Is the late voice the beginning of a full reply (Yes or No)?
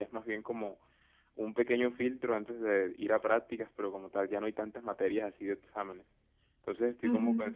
No